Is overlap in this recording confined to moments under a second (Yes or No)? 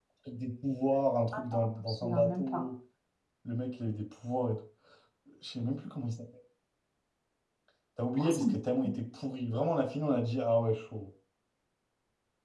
No